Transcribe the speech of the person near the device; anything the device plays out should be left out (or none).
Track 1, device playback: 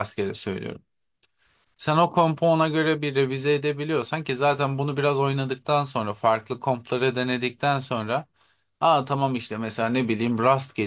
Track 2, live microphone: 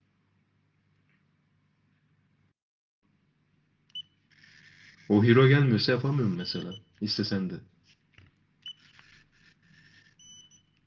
o hero gelmiyorsa yapamıyorum mesela. İstesen de.